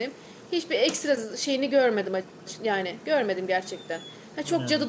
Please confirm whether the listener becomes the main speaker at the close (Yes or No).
No